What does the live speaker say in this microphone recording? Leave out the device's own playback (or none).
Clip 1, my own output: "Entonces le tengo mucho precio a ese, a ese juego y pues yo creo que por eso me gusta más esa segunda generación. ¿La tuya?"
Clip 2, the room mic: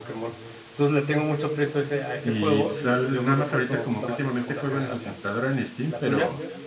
Y pues al- nada más ahorita como que últimamente juego en la computadora en Steam, pero,